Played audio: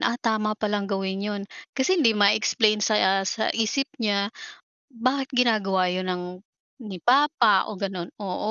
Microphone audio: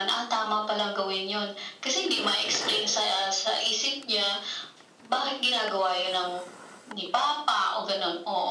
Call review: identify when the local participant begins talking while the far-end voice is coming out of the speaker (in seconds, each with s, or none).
none